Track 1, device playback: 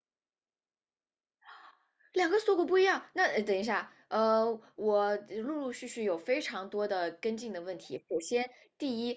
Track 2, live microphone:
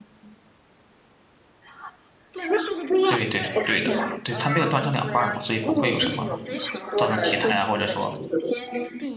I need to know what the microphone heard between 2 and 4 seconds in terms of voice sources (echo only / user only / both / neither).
both